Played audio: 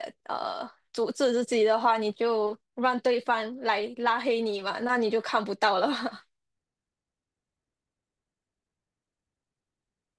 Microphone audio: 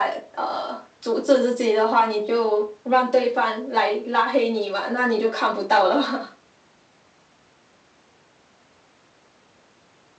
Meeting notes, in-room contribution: none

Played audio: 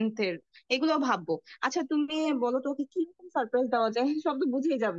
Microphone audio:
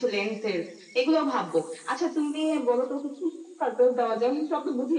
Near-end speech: none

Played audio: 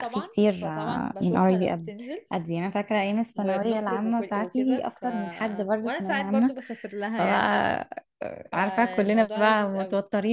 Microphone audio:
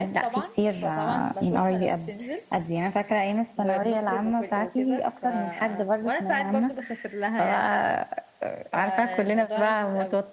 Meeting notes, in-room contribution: none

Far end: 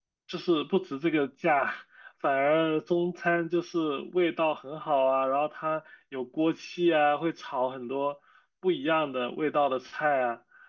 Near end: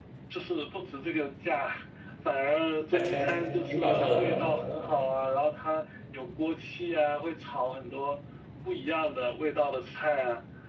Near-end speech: present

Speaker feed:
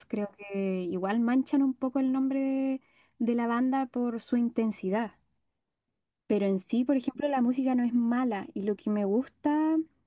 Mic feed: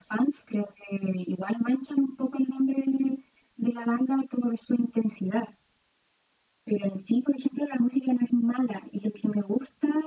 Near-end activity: none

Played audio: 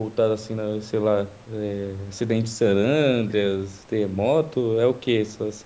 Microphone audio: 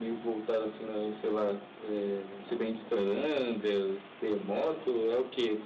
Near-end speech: none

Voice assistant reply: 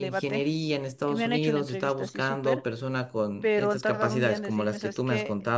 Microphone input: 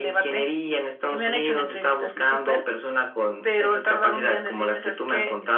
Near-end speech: none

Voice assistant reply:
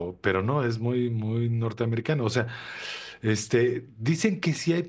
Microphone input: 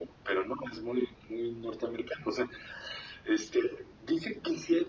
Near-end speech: none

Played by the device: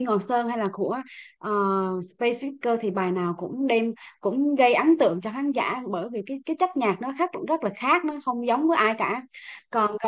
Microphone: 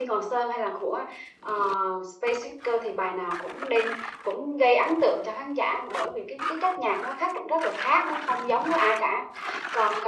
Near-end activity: none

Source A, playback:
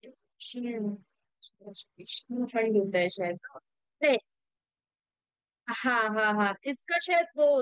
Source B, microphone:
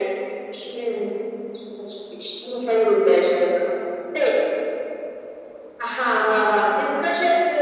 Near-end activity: none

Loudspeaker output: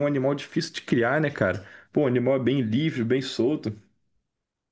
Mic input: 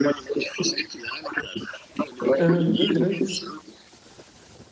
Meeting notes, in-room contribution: present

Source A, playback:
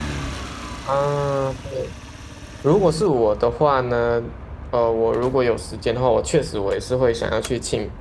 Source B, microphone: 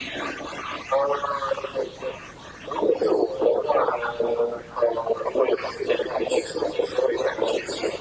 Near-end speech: none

